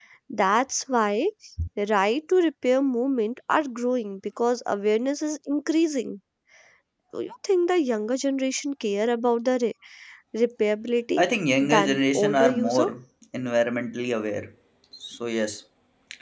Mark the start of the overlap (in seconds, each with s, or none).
11.6 s